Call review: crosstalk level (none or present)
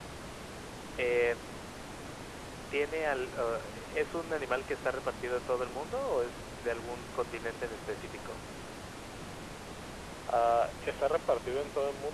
none